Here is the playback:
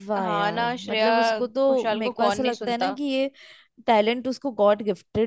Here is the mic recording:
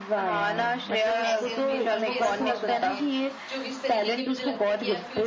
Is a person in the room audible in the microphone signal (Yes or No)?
Yes